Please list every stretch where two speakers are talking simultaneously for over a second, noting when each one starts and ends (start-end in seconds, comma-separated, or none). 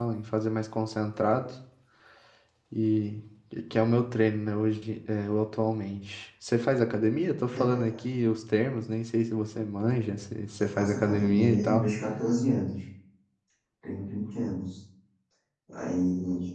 10.6-11.9